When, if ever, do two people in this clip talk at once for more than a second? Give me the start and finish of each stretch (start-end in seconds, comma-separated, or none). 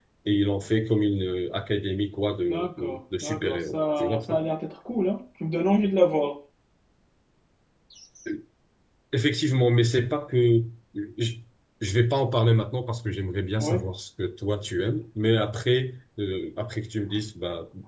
2.4-4.4